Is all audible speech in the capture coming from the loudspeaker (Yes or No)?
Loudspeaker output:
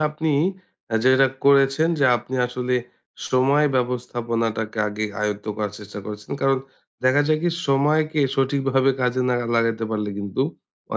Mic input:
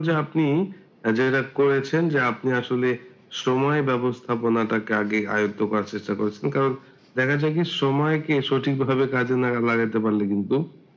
Yes